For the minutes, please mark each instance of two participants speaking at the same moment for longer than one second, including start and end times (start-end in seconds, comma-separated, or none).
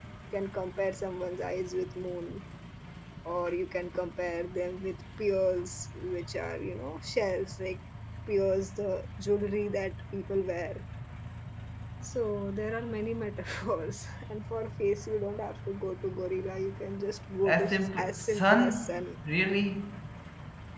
17.4-19.0